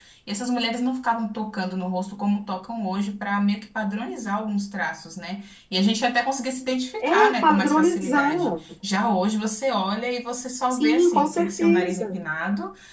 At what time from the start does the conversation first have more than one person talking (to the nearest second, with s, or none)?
7 s